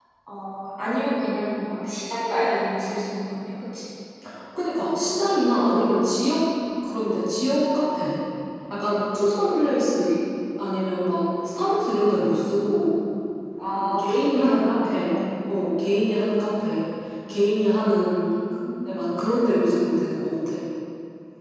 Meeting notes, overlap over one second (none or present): present